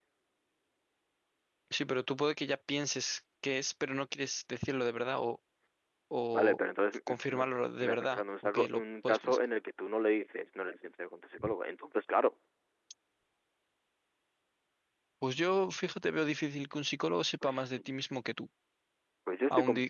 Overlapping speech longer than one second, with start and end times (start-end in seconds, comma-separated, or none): 7.8-9.4